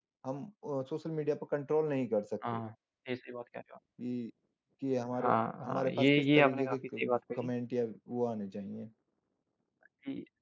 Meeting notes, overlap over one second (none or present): present